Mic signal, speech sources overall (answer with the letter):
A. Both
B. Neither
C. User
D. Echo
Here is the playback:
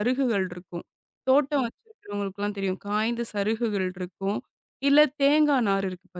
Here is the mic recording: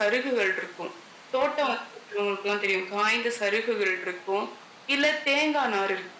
D